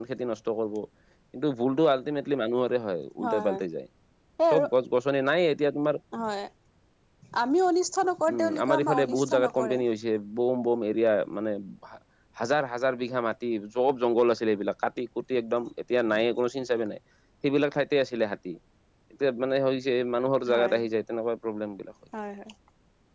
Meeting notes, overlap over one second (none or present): present